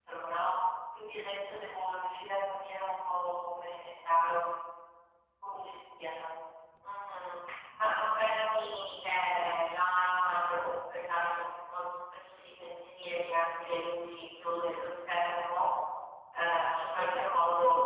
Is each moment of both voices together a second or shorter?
Yes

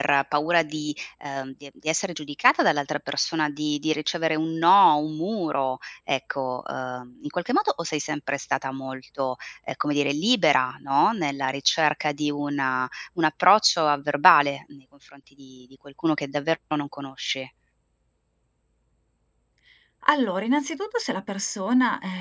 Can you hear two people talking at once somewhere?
No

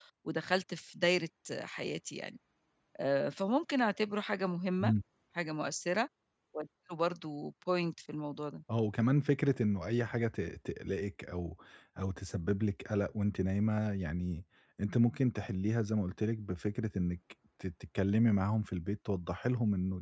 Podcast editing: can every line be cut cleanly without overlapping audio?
Yes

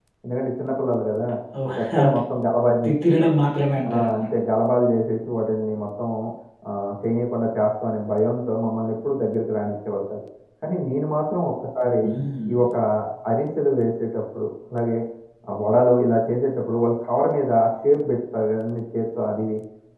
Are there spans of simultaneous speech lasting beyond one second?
No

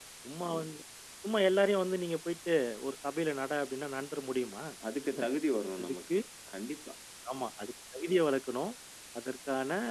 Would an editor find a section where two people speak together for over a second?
No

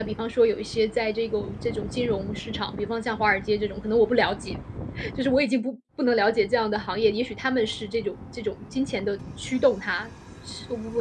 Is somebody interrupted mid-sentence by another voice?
No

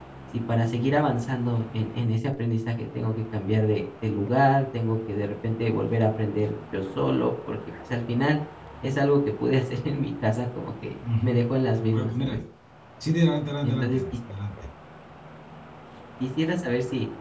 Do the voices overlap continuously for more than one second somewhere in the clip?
No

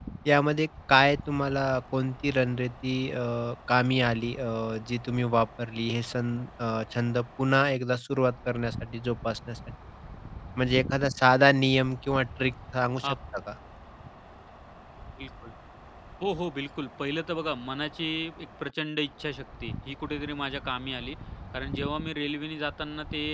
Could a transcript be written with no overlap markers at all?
Yes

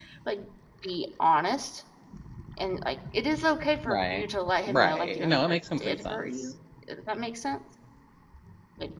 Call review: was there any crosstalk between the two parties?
Yes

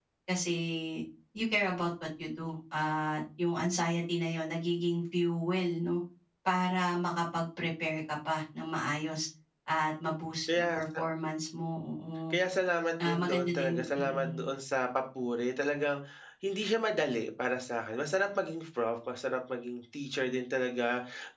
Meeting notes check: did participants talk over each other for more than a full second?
Yes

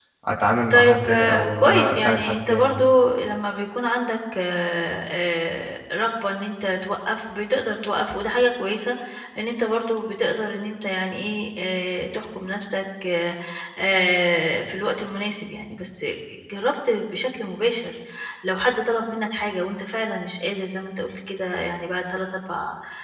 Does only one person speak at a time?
No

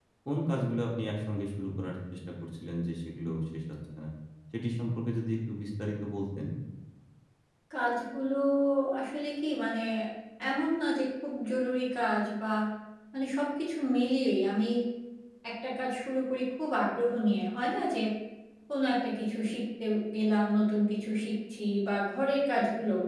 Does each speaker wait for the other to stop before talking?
Yes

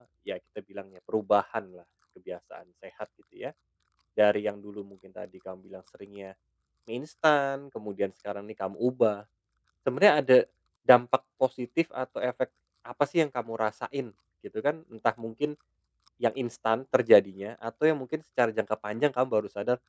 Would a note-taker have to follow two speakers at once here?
No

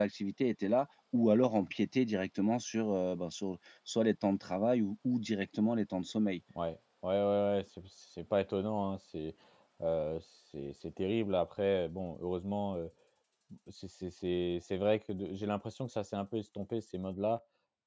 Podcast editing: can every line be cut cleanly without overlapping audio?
Yes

